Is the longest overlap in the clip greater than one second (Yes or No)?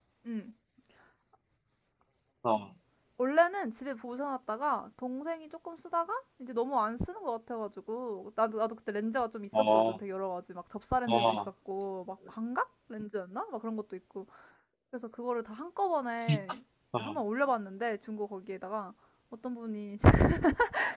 No